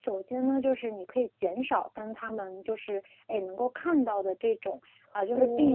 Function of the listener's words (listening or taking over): listening